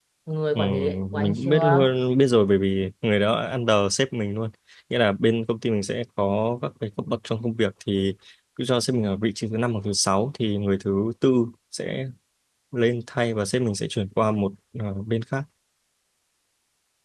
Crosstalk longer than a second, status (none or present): present